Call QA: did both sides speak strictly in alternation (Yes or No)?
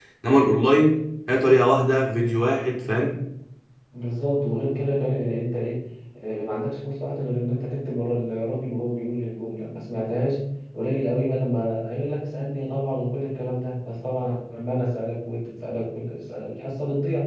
Yes